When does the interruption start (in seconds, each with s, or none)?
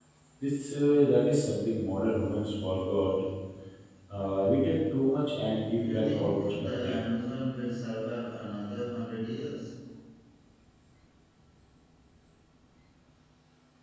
5.8 s